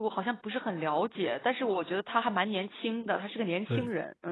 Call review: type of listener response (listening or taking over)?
taking over